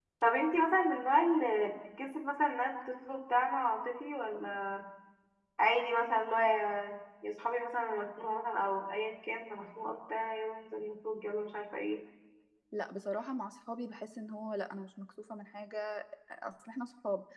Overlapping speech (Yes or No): No